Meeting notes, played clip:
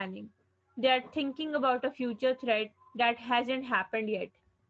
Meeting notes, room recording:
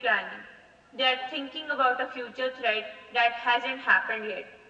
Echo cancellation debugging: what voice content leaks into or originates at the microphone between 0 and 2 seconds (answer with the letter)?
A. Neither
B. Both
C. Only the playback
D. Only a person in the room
C